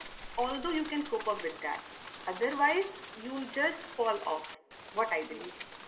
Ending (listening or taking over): taking over